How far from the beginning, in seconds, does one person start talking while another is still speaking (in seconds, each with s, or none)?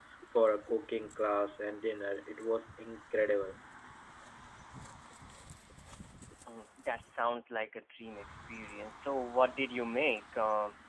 none